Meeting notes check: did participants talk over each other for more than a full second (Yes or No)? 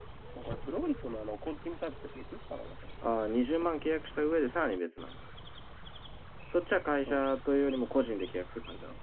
No